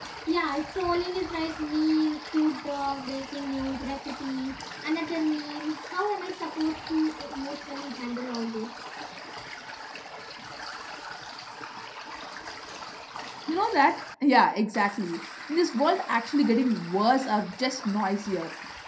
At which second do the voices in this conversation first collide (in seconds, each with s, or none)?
none